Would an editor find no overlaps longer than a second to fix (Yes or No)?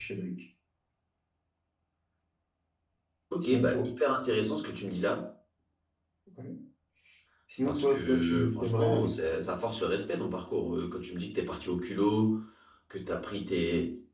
No